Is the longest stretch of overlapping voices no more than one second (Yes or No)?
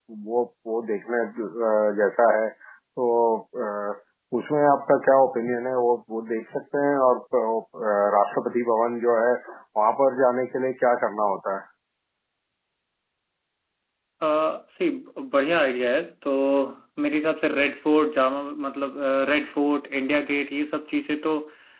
Yes